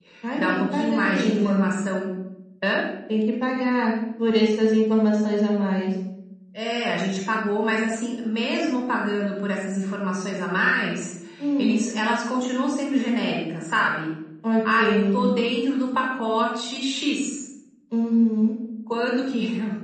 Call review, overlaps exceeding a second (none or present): present